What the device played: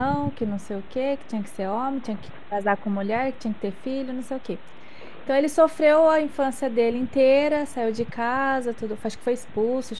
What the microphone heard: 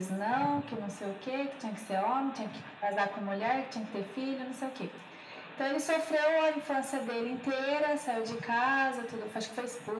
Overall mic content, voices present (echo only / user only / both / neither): echo only